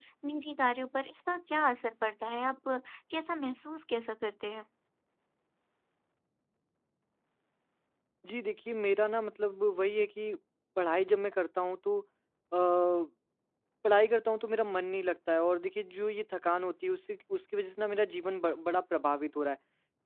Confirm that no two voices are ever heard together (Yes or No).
Yes